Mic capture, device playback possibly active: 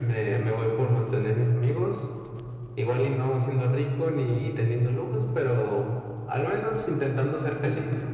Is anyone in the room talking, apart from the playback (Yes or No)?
No